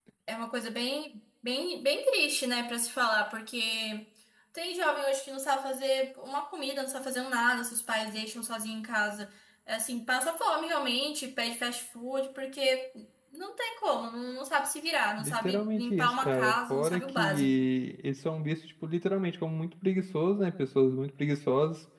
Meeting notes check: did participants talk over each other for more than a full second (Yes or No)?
Yes